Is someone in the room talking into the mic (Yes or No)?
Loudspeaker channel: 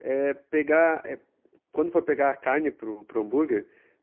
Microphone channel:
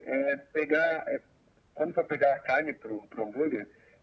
No